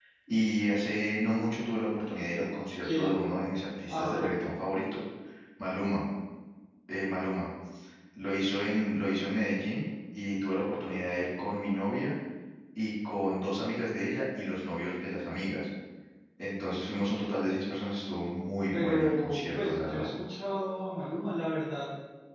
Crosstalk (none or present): present